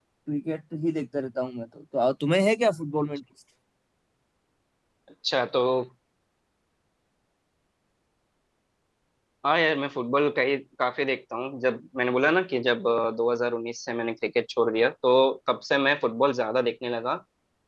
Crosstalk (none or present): none